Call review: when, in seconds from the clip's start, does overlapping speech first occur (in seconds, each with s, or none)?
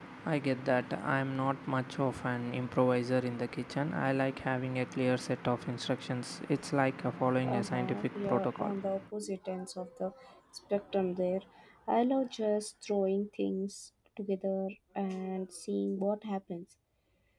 7.4 s